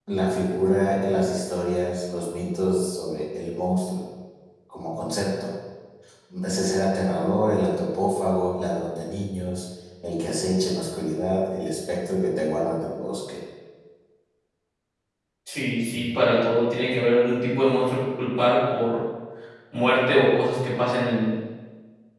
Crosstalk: none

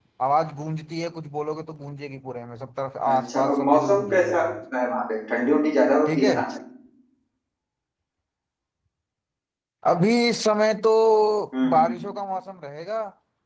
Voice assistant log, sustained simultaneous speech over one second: present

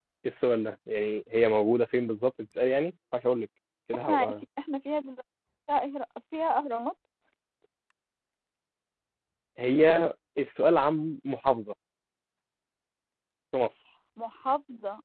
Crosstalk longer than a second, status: none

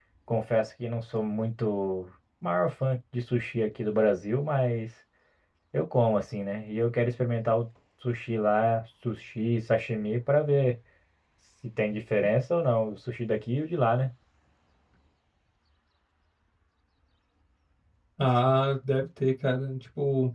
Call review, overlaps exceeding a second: none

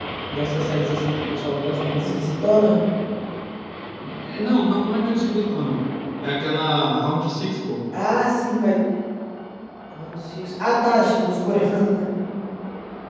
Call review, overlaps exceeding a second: none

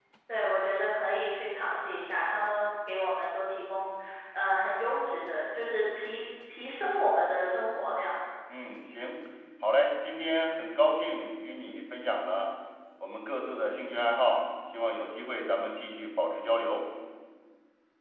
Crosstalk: none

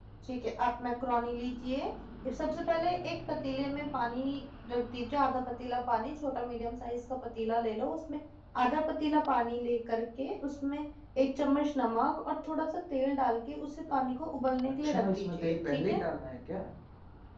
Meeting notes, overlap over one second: present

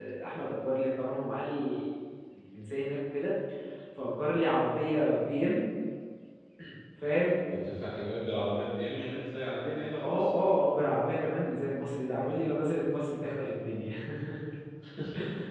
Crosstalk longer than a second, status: none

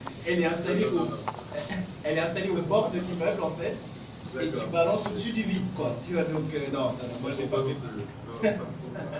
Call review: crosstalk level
present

